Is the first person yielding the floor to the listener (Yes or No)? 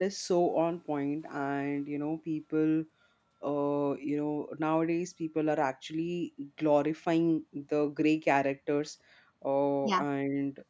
No